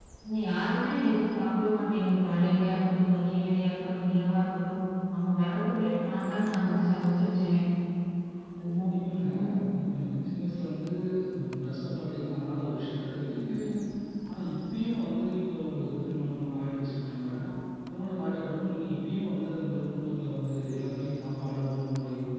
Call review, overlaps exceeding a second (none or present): none